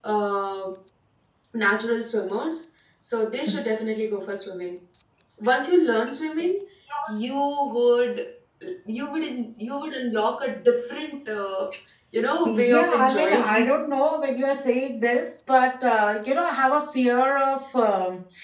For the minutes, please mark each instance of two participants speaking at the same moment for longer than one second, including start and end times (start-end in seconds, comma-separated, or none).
12.4-13.9